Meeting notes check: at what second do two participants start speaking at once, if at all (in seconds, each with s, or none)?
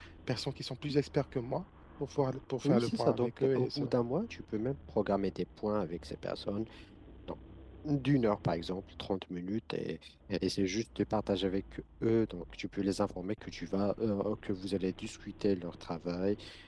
2.6 s